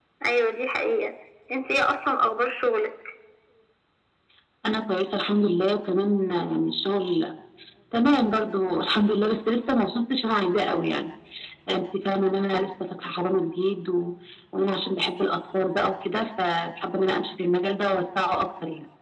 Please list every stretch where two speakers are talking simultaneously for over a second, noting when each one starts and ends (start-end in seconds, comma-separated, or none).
none